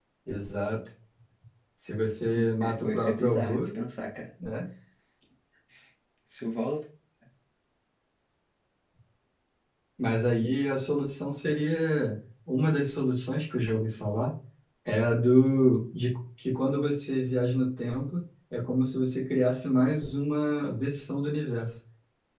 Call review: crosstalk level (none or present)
present